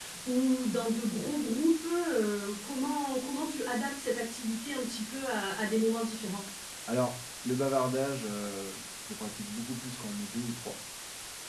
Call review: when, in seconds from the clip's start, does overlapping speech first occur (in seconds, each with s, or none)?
none